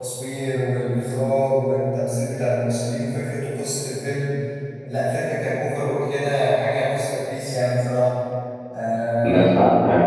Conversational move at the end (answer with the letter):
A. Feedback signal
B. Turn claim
B